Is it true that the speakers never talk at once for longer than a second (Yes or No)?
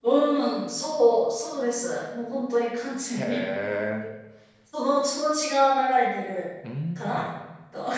Yes